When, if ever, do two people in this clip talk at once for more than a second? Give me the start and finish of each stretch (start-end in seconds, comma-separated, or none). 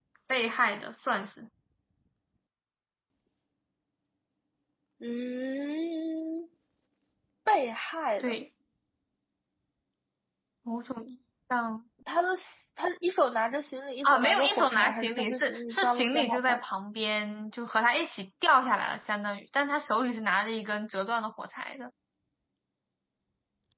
14.0-16.6